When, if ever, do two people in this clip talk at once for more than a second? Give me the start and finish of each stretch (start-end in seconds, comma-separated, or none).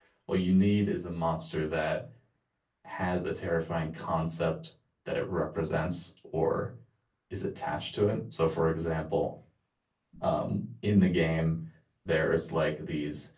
none